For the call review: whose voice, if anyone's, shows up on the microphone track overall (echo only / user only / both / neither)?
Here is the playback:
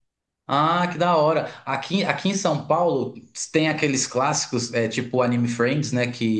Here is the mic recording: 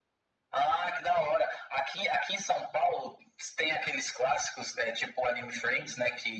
echo only